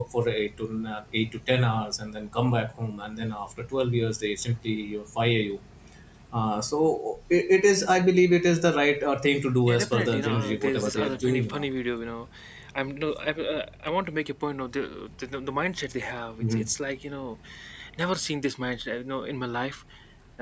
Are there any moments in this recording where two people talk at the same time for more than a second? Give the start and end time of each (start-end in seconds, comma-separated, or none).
9.7-11.6